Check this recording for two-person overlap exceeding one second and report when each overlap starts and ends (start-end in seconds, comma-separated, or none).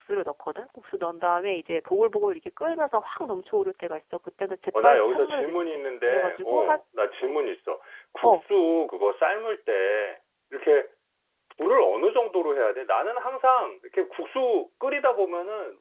4.8-6.8